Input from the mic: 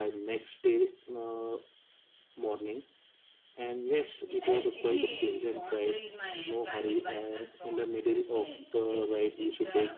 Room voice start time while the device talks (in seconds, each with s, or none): 4.2 s